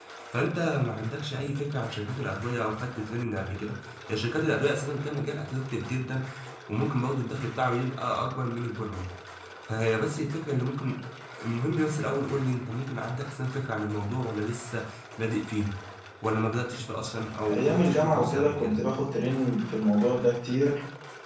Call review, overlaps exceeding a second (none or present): present